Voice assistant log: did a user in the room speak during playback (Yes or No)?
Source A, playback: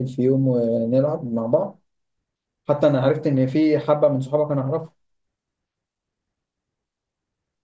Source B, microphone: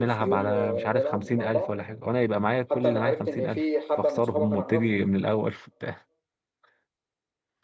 Yes